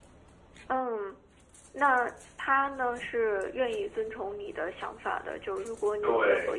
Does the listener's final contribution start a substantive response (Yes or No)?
No